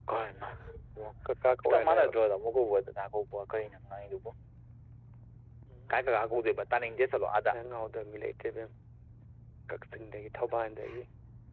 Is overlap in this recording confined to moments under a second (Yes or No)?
Yes